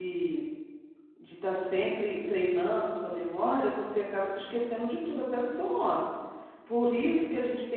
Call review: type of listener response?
listening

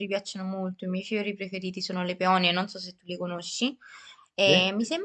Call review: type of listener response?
listening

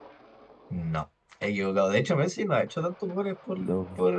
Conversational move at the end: listening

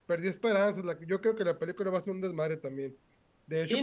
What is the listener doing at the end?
taking over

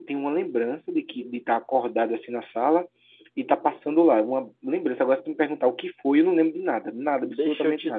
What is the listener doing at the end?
taking over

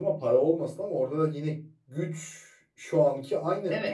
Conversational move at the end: listening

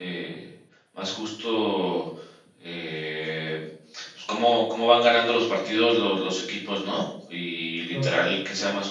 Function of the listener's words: listening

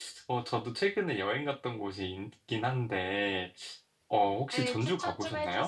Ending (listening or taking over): taking over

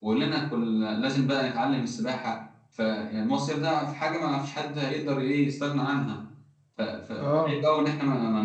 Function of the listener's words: listening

